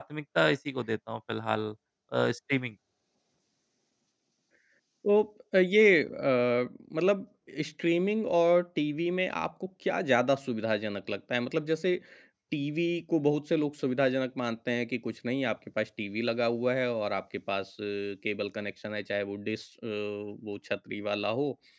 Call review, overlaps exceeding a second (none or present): none